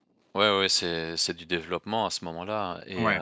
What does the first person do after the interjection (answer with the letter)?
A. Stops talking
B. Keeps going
A